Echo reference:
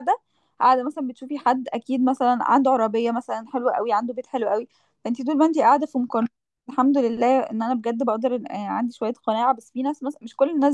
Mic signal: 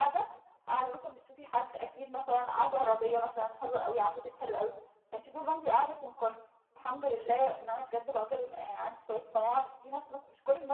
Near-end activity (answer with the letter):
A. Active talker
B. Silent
B